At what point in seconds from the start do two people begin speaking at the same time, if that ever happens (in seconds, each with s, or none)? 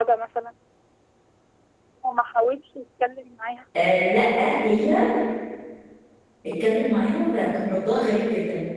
none